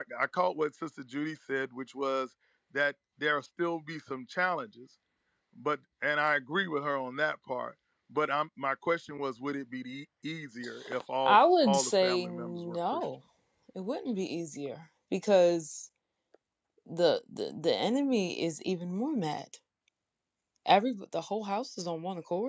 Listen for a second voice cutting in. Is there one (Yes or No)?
Yes